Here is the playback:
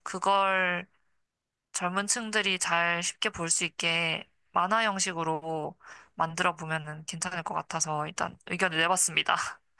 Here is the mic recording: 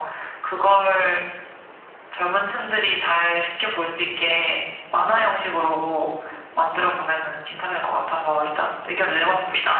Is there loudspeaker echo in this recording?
Yes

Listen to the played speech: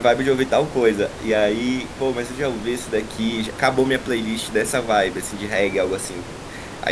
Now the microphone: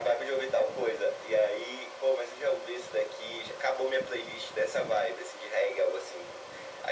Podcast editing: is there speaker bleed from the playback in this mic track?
Yes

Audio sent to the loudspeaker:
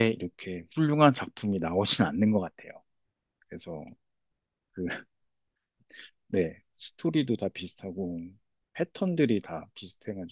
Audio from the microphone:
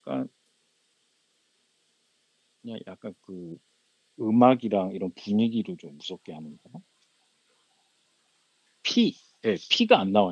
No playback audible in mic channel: Yes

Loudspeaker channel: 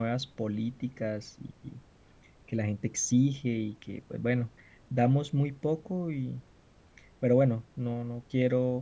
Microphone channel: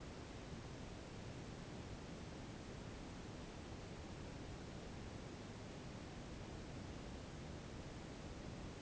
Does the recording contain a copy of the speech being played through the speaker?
No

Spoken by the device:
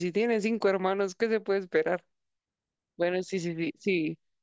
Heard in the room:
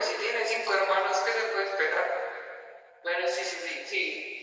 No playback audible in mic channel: No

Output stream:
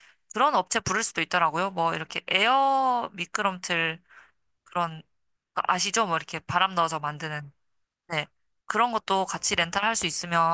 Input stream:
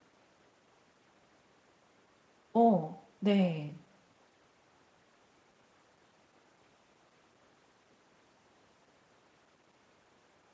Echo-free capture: Yes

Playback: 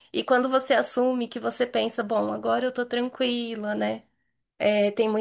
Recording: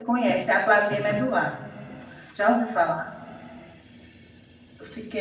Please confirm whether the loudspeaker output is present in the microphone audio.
No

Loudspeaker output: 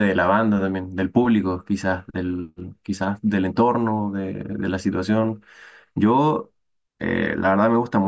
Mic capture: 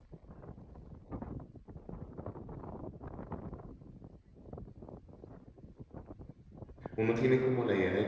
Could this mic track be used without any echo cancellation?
Yes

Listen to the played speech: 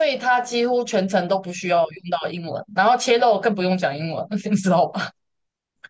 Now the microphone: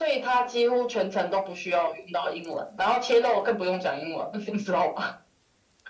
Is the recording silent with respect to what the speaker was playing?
No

